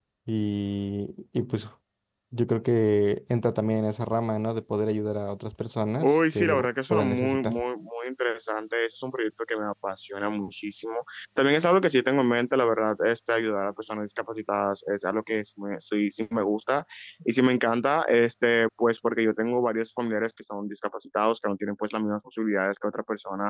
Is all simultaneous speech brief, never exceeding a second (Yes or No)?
No